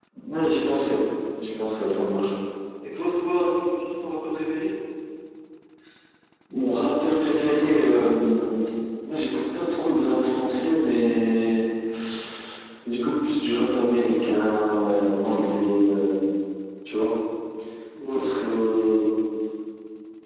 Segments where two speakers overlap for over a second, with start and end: none

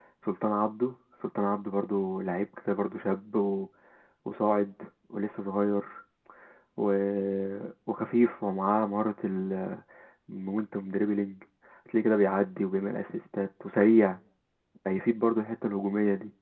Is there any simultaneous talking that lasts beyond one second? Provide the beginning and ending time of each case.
none

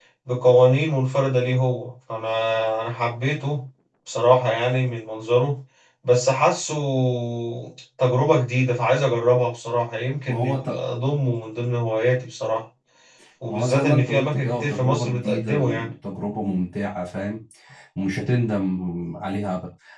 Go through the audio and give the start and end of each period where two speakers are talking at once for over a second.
13.5-15.9

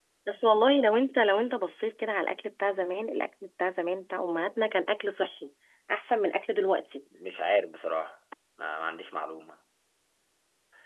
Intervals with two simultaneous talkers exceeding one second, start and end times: none

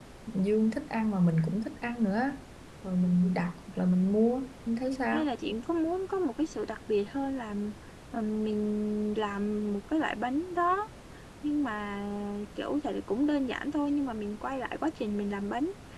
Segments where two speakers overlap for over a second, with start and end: none

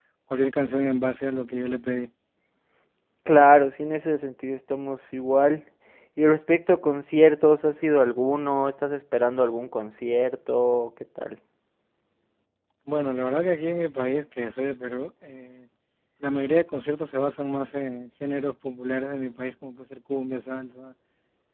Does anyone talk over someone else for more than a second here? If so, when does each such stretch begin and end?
none

